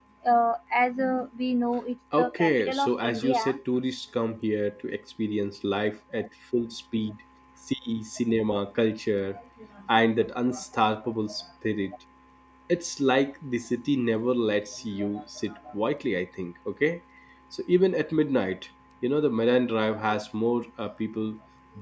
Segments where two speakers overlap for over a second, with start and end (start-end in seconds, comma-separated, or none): 2.2-3.6